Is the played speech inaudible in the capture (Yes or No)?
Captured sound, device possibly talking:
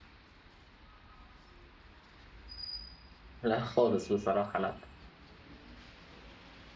Yes